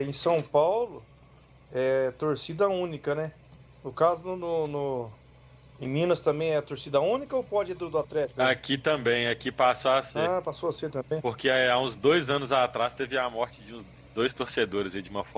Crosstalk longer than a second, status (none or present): none